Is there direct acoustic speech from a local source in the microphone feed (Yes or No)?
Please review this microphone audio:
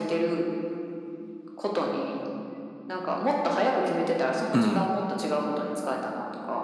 Yes